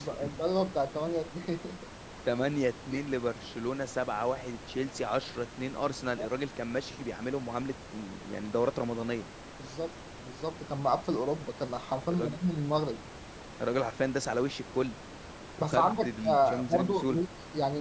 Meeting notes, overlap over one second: present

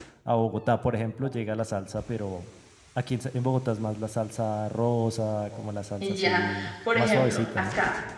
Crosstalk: present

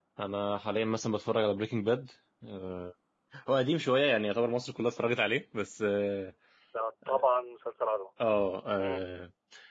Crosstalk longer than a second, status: none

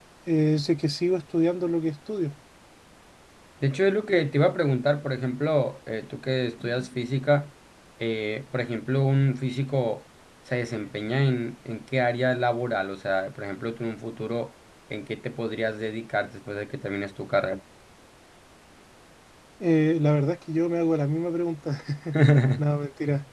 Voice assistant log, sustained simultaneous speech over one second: none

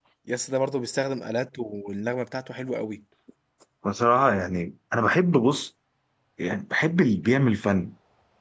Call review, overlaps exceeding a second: none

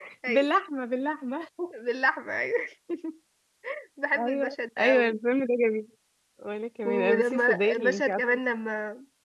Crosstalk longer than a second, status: present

